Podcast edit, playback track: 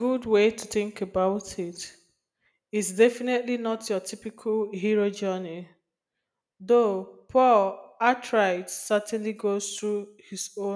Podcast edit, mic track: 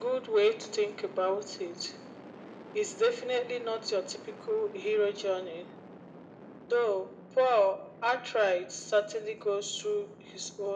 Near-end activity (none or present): none